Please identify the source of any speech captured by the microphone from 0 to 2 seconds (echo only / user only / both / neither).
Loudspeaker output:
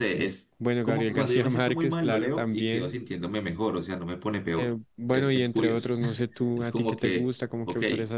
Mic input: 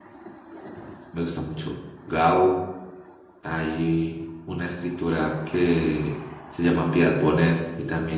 user only